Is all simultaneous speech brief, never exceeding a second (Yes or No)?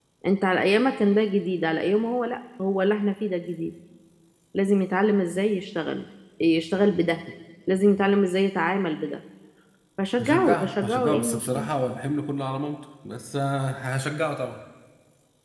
No